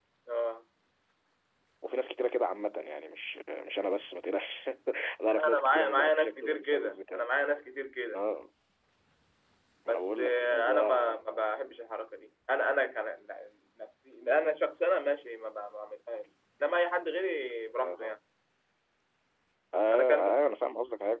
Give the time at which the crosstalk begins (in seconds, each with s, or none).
5.3 s